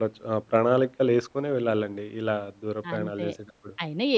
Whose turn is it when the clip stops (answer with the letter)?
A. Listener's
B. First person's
A